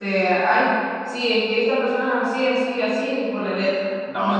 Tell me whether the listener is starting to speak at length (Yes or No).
Yes